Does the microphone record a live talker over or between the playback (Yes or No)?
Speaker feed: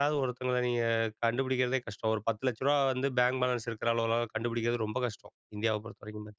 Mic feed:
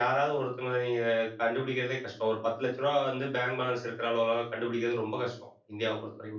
No